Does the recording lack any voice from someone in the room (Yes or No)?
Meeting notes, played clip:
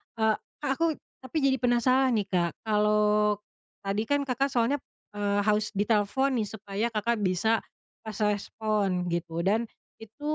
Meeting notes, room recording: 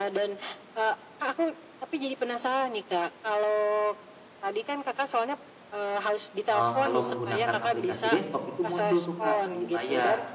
No